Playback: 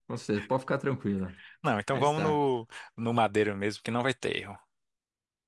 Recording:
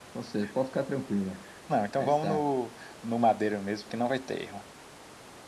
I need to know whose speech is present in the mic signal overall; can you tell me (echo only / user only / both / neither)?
echo only